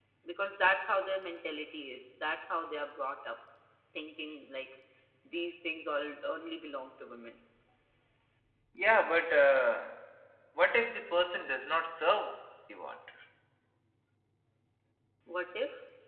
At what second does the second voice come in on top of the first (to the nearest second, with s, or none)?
none